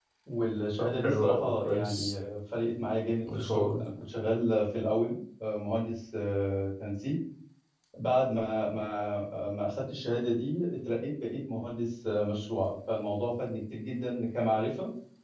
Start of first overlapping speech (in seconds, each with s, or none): 0.8 s